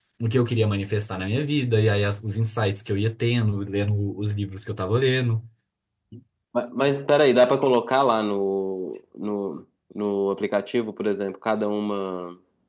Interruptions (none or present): none